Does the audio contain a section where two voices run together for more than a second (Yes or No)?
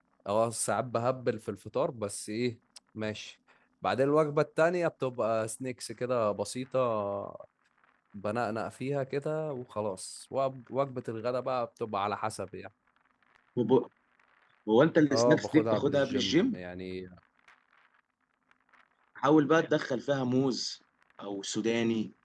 Yes